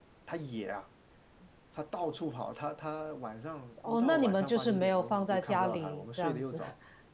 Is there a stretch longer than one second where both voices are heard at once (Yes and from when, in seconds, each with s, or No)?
Yes, from 3.8 s